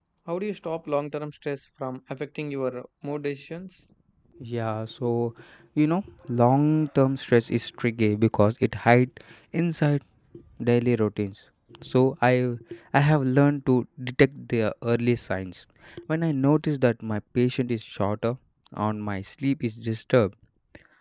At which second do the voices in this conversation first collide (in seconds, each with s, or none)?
none